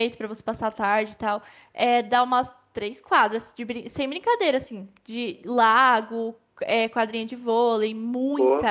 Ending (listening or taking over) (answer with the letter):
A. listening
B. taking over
A